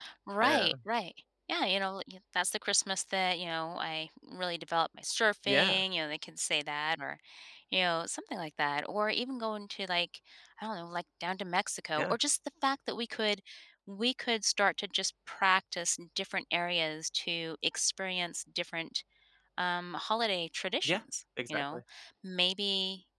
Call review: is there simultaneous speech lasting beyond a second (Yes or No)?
No